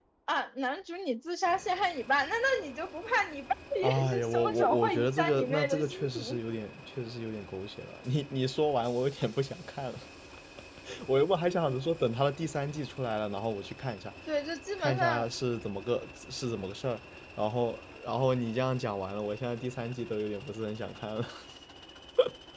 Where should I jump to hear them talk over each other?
3.8 s

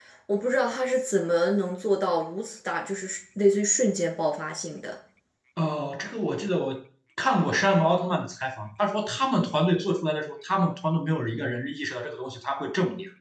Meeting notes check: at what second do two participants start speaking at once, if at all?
none

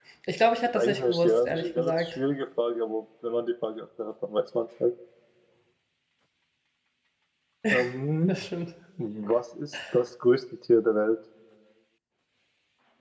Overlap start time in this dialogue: 0.8 s

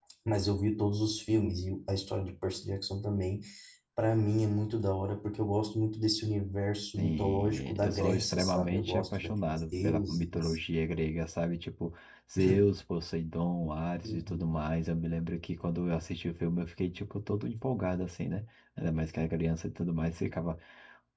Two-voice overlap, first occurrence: 7.0 s

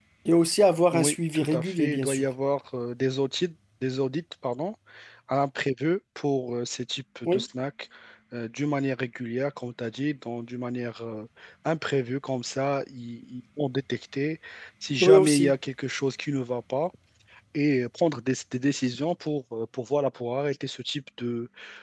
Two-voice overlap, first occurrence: 0.9 s

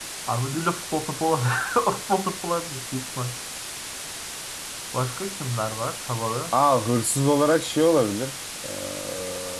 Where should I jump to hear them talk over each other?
none

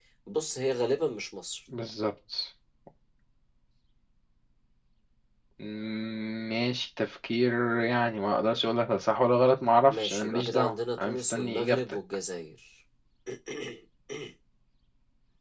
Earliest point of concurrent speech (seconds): 9.9 s

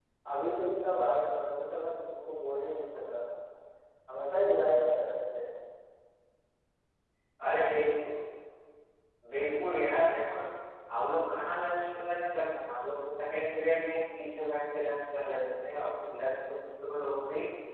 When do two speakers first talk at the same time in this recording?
none

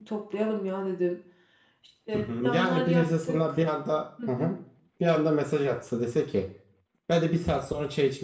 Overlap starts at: 2.1 s

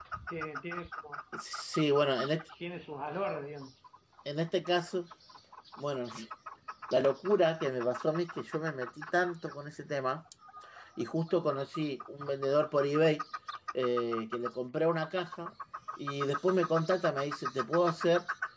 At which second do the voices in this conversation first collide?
none

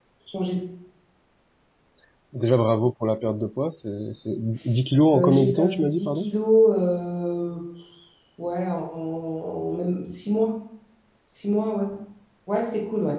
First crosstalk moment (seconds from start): 5.1 s

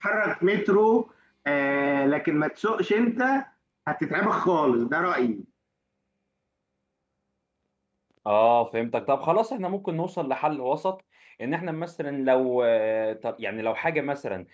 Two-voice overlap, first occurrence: none

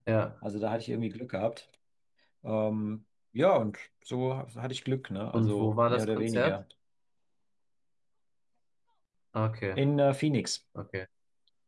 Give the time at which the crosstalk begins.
5.3 s

